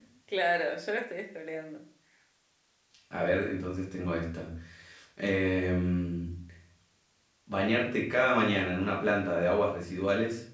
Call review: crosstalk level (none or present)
none